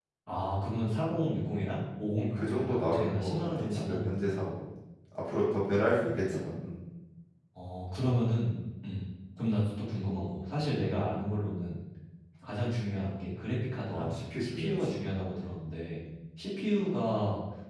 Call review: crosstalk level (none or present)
present